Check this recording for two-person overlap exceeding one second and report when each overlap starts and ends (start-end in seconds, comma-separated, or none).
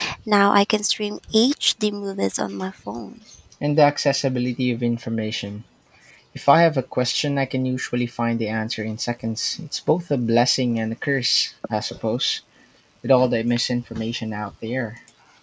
none